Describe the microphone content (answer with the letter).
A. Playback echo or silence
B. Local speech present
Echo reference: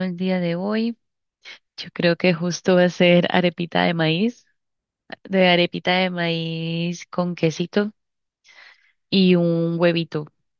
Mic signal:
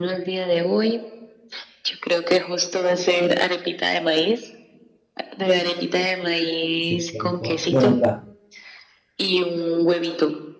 B